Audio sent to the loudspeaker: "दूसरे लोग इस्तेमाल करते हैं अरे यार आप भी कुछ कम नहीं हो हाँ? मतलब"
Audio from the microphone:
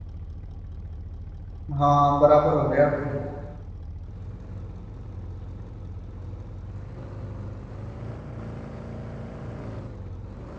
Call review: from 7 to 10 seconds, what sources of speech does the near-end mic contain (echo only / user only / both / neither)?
neither